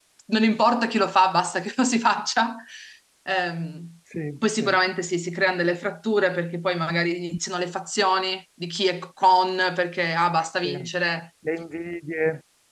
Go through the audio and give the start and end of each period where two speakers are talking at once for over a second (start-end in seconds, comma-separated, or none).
none